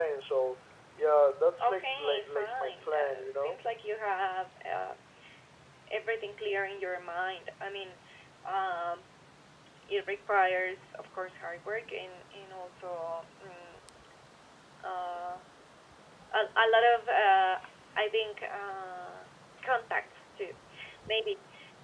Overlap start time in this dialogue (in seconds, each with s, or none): 1.6 s